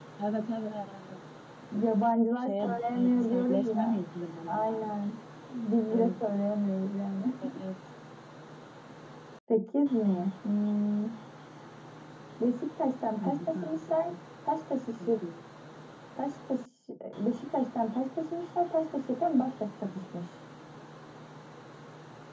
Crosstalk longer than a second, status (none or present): present